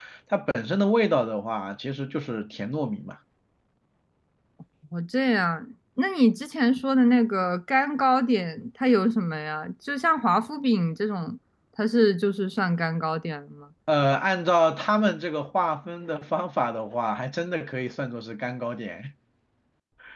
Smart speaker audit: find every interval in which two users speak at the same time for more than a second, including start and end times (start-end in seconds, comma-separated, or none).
none